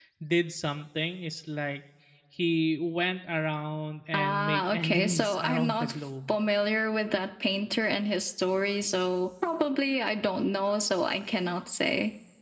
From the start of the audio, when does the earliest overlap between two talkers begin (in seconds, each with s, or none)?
4.1 s